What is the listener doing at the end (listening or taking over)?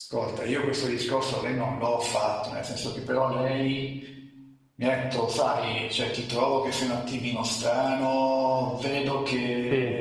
listening